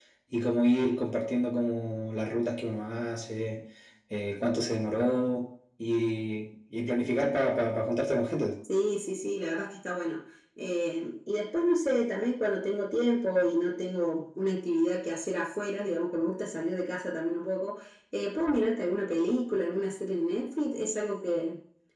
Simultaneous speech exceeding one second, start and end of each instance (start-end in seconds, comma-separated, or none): none